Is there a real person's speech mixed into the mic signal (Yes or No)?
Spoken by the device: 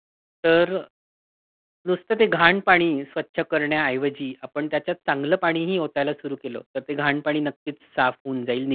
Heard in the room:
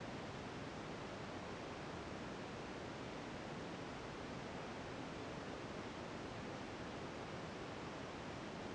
No